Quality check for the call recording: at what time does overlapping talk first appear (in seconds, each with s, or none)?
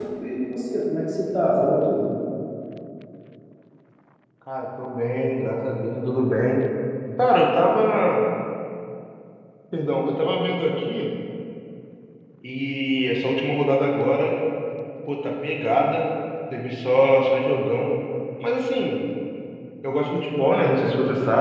none